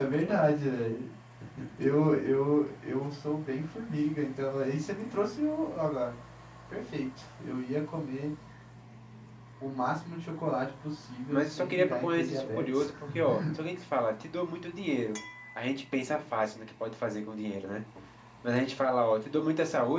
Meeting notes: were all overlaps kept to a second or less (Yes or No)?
No